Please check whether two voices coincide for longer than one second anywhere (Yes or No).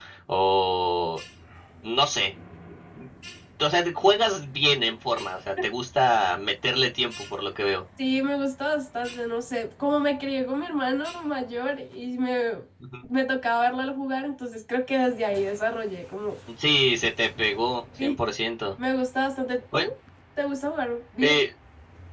No